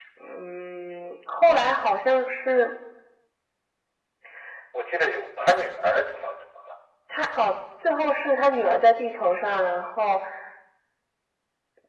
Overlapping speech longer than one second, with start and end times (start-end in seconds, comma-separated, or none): none